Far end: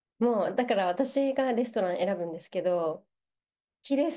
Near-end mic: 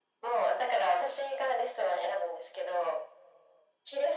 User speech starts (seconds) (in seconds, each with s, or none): none